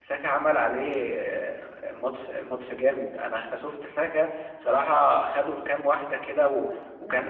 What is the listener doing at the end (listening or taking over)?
taking over